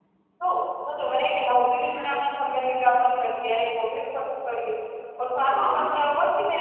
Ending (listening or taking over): listening